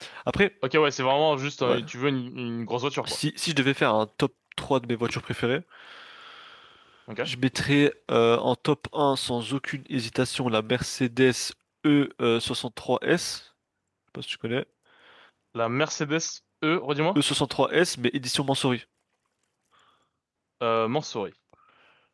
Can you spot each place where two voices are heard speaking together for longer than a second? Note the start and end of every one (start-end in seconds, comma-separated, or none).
none